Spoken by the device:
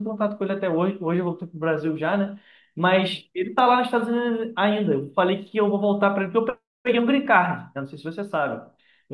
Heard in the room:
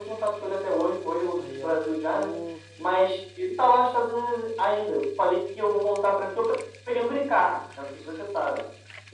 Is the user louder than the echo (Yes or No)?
No